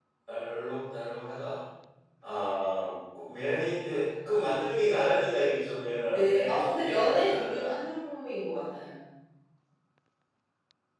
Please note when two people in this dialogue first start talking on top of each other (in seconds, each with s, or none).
6.1 s